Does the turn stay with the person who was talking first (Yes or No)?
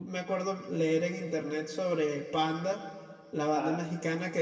Yes